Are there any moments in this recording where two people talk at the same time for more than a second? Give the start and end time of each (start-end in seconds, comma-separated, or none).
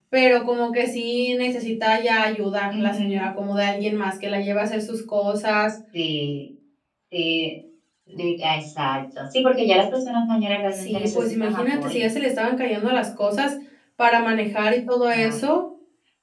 10.7-12.0